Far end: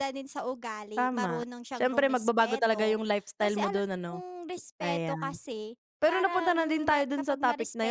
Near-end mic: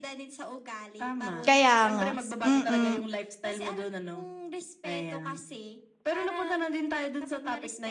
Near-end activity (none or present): present